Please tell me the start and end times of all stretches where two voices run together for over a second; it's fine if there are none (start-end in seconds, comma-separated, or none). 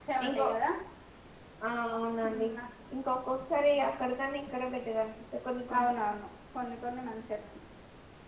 none